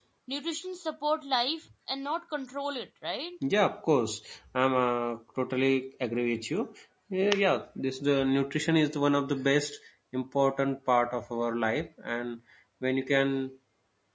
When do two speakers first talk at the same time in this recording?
none

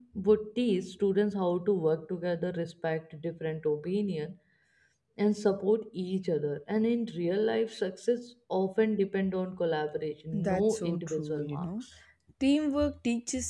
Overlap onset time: 10 s

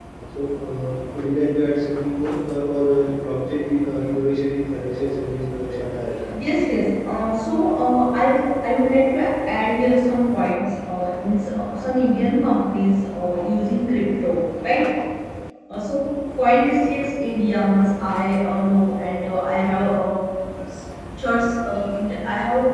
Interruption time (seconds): none

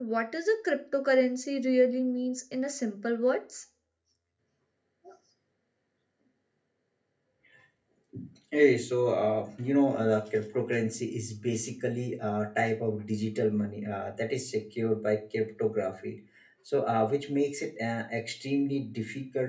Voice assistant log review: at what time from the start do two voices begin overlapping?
none

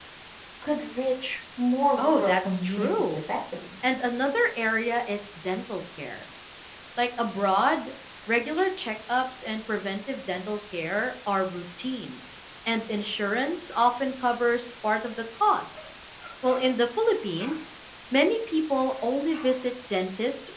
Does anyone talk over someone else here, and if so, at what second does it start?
2 s

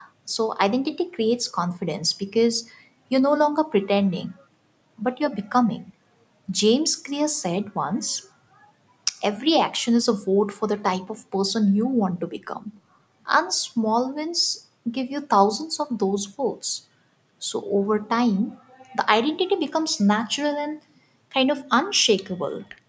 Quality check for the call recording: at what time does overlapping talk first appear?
none

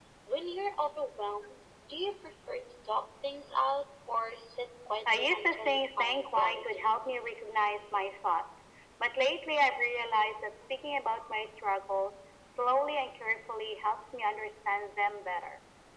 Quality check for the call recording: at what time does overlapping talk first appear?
5 s

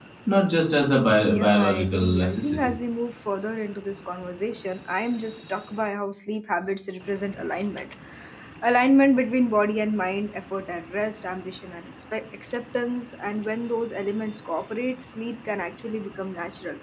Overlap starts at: 1 s

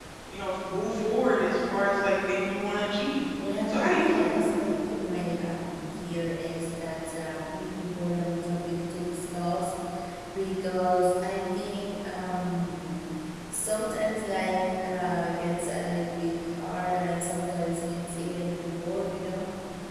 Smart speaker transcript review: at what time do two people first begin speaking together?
3 s

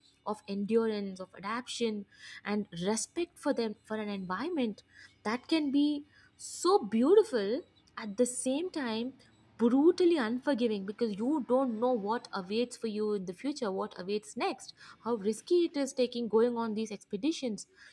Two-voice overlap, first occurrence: none

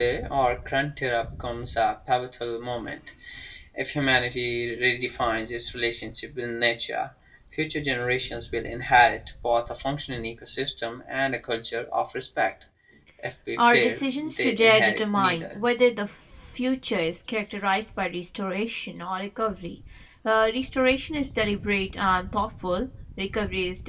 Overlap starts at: 14 s

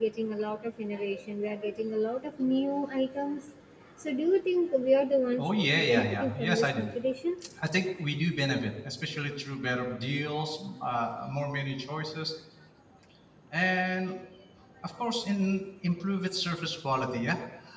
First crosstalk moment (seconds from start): 5 s

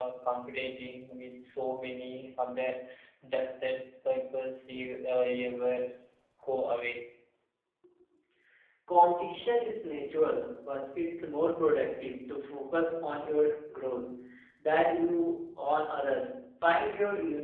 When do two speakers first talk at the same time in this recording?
none

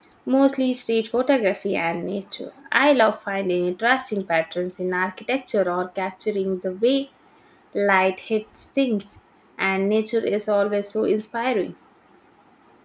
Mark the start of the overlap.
none

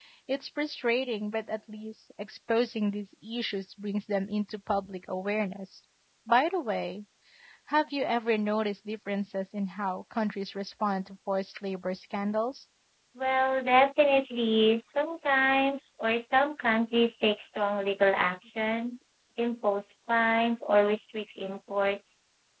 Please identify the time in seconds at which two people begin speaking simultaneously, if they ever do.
none

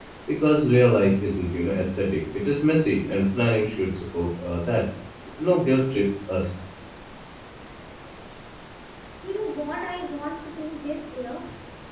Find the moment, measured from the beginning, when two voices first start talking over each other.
none

